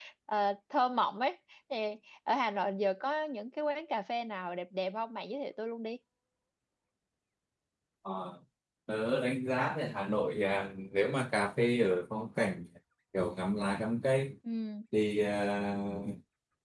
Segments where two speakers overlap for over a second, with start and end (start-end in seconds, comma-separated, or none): none